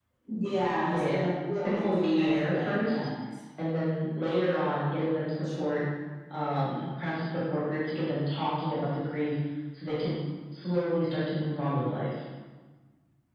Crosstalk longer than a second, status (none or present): present